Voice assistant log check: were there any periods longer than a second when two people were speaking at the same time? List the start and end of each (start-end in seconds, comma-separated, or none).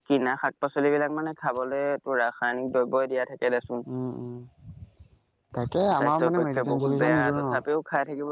6.0-7.4